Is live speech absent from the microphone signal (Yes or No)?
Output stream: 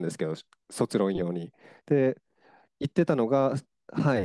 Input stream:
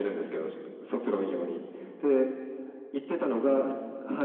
Yes